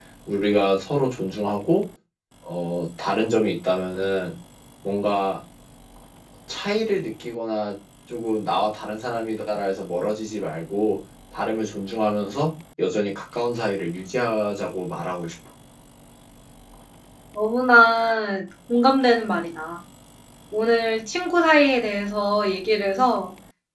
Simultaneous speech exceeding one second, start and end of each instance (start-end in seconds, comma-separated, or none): none